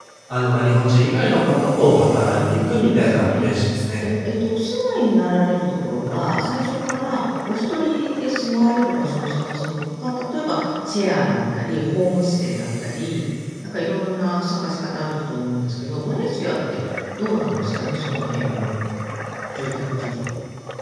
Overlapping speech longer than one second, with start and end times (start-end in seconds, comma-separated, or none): 2.3-3.5